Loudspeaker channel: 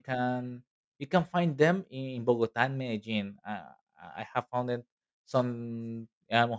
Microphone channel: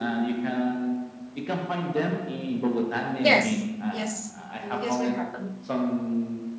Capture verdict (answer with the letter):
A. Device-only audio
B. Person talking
B